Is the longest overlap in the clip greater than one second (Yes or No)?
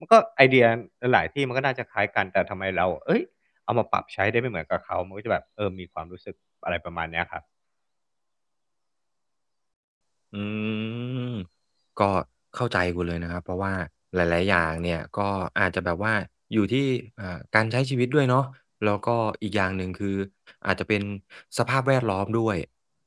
No